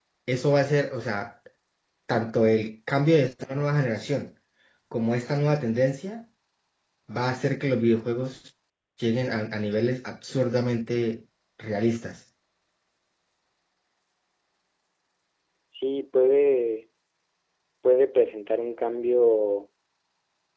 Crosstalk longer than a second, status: none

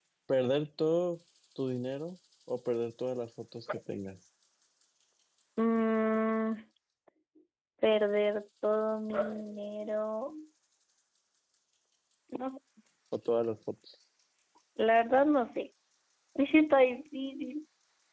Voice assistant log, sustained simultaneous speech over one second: none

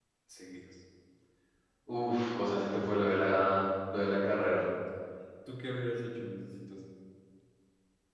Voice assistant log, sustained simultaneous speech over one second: none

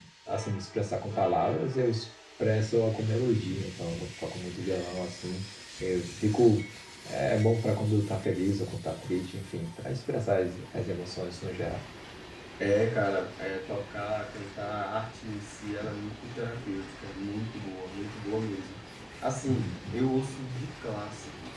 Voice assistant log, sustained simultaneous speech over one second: none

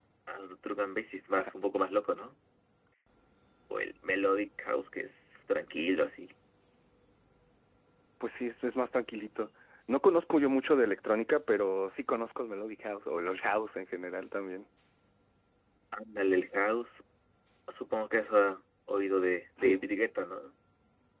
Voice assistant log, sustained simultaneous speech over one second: none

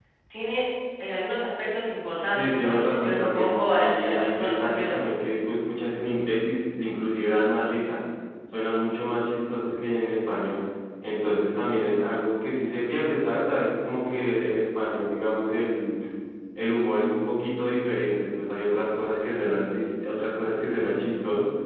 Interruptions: present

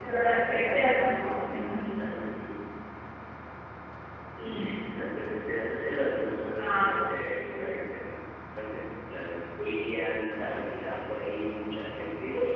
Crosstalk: present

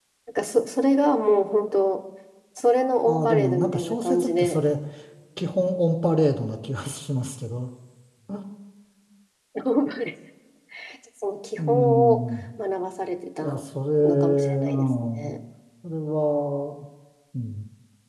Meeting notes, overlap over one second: present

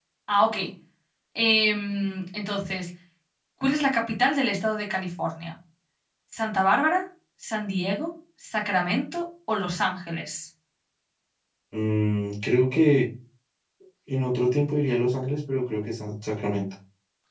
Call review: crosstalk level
none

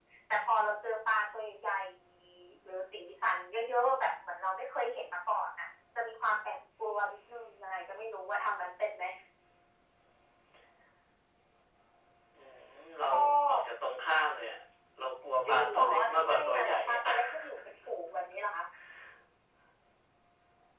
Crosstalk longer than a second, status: present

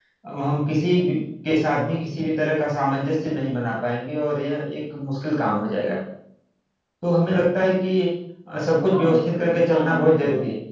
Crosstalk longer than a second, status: present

